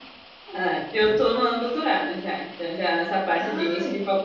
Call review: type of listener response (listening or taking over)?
listening